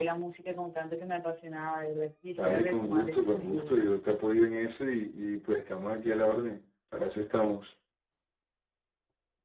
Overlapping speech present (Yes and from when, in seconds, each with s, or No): Yes, from 2.4 s